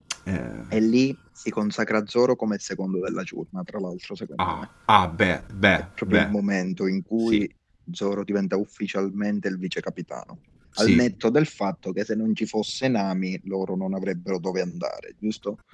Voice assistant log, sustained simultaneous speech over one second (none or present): none